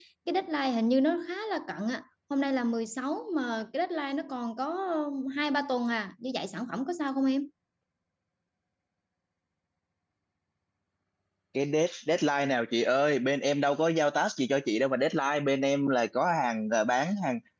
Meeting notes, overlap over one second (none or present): none